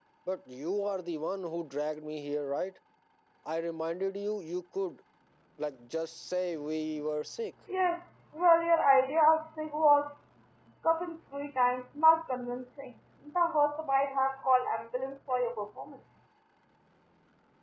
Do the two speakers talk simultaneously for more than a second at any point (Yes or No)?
No